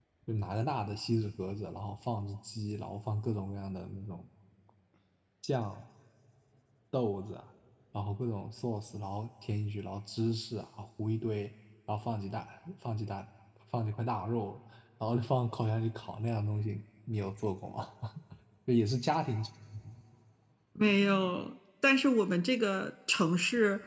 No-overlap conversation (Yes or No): Yes